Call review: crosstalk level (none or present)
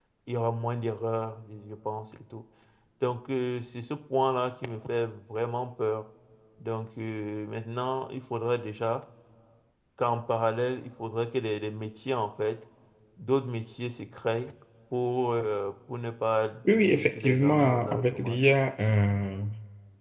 present